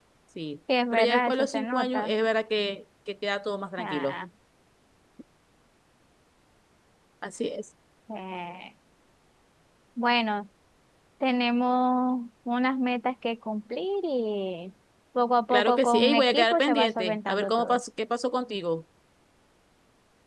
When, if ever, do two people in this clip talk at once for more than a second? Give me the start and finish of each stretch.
0.9-2.1, 15.5-17.8

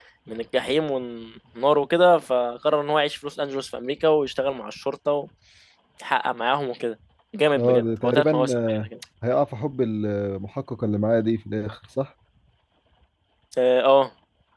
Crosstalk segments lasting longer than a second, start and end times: 7.6-8.8

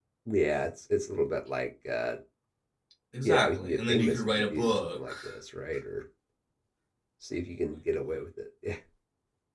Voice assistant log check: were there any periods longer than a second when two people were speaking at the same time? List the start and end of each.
3.2-5.1

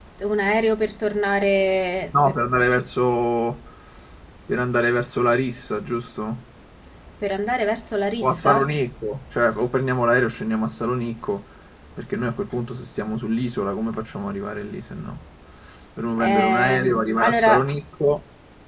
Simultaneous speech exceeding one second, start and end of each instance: 16.2-17.7

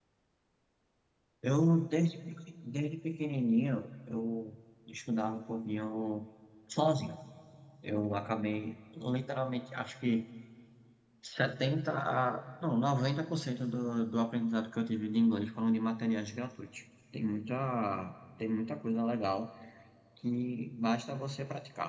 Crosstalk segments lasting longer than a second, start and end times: none

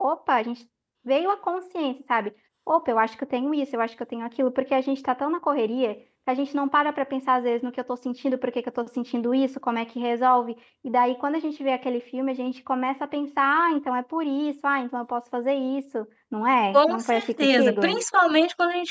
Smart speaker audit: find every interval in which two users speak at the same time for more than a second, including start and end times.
16.7-18.0

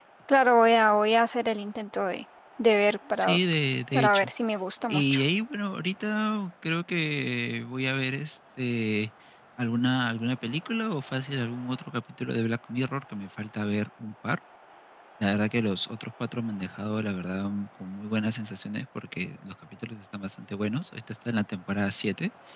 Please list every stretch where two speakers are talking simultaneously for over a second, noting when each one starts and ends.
none

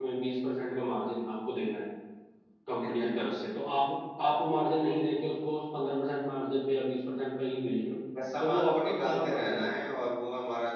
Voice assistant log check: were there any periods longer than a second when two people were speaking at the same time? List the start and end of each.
8.4-9.7

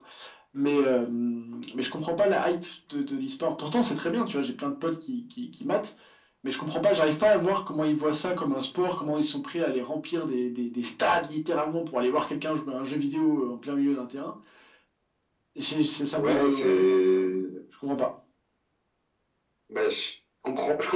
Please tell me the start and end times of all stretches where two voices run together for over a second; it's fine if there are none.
16.2-17.6

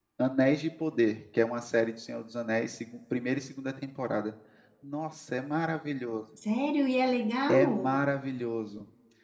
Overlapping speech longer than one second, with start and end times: none

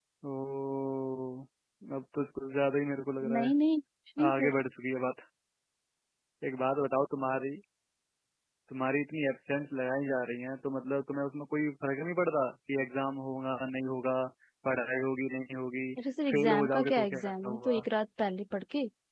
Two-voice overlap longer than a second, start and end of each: 16.3-17.8

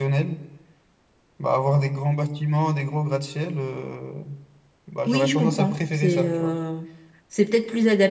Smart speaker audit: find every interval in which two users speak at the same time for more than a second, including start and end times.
5.1-6.6

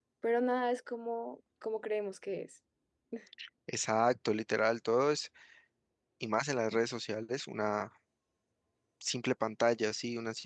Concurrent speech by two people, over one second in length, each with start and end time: none

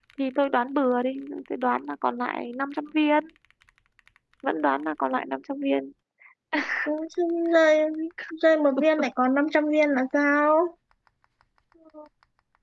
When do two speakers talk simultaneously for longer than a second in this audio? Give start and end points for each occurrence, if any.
none

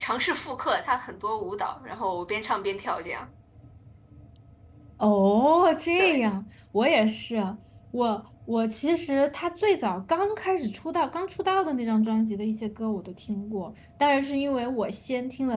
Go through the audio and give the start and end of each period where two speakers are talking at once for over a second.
none

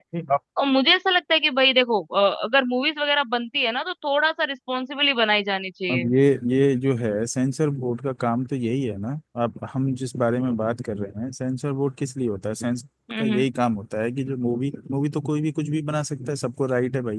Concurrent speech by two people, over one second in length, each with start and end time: none

